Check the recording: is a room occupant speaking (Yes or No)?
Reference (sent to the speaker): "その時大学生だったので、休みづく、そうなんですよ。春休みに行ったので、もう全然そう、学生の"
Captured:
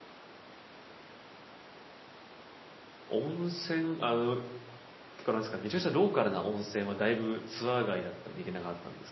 Yes